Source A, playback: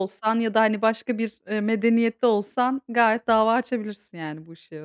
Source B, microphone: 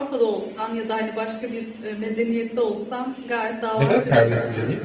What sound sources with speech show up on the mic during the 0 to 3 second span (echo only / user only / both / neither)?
echo only